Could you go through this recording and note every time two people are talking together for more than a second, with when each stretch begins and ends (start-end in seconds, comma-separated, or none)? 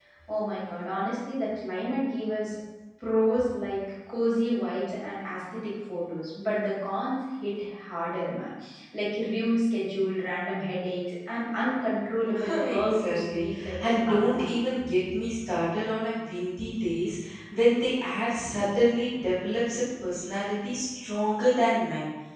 12.5-14.4